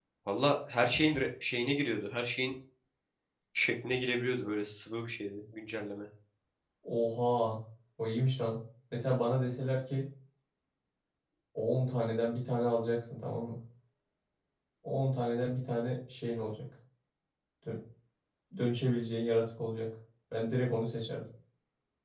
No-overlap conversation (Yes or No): Yes